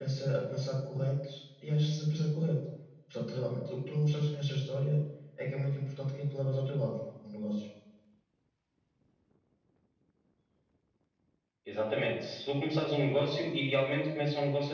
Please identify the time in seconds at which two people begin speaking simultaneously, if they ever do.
none

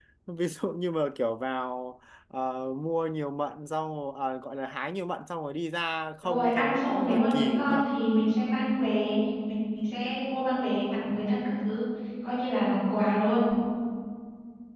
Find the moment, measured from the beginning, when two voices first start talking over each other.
6.2 s

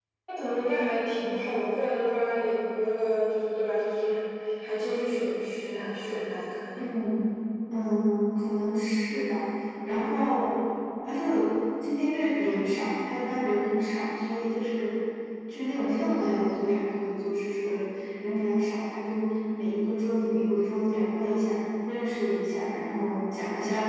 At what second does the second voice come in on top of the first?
none

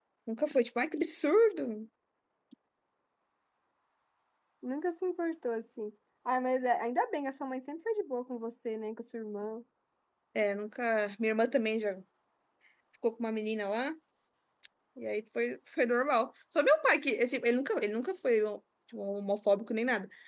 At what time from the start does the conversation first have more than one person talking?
none

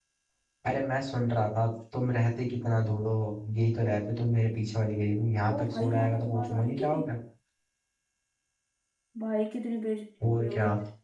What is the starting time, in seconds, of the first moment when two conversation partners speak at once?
5.6 s

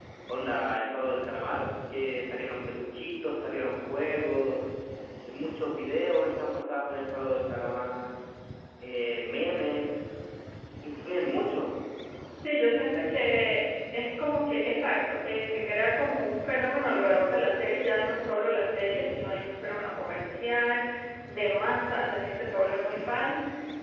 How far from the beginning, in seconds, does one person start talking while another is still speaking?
none

